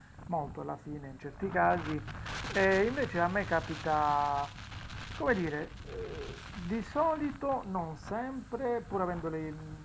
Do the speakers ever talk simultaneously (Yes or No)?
No